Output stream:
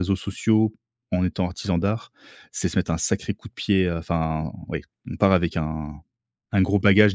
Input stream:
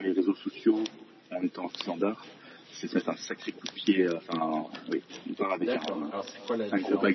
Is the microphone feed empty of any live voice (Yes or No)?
No